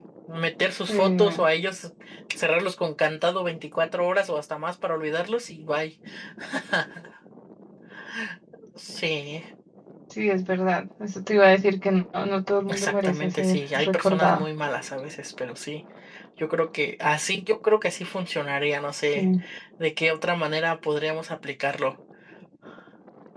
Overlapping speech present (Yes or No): Yes